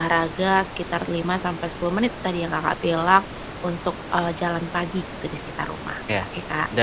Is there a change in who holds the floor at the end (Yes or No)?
Yes